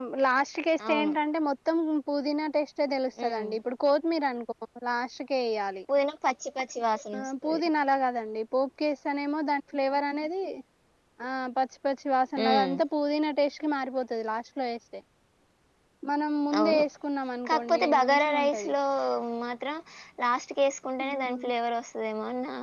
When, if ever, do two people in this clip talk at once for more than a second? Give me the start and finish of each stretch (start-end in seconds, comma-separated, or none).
17.5-18.7